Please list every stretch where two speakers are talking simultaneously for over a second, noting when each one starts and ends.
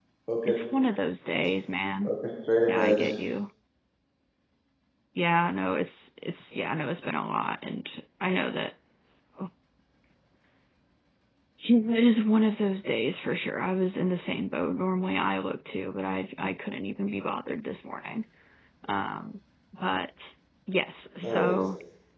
none

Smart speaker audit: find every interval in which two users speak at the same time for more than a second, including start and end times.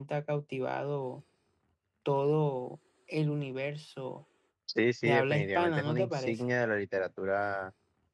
5.0-6.4

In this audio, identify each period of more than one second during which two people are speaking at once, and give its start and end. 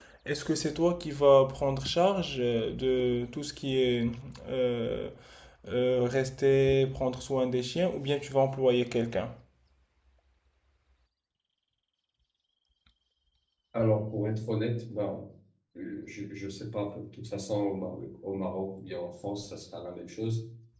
none

